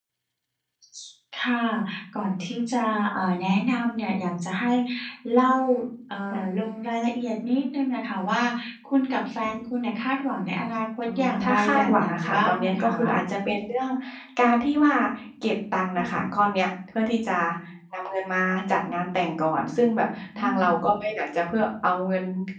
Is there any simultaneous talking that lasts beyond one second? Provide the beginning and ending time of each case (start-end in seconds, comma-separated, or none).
11.0-13.2